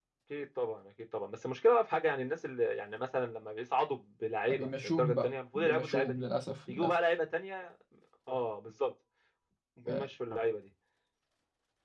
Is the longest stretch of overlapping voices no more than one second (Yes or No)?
No